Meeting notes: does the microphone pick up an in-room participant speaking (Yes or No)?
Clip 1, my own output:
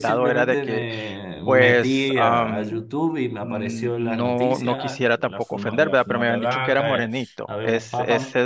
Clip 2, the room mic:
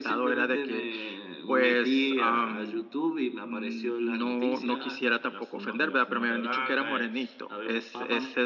No